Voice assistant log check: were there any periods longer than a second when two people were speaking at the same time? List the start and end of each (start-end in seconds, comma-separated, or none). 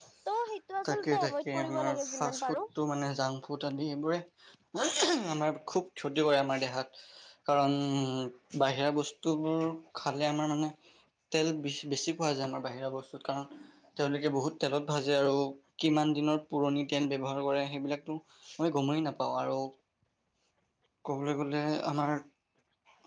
0.9-2.6